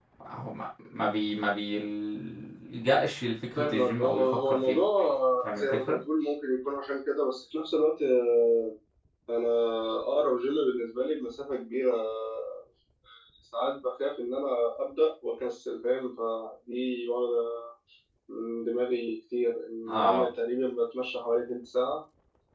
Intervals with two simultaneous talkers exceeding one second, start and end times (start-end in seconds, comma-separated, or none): 3.6-4.8